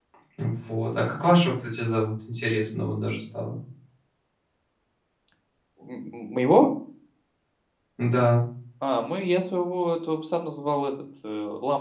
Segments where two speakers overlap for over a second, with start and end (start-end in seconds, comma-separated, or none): none